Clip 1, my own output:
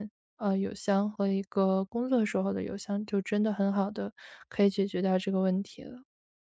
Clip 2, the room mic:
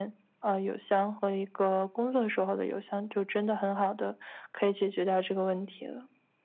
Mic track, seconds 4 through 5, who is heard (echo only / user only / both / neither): echo only